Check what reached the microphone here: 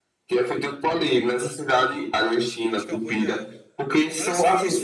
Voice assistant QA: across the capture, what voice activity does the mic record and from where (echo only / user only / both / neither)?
both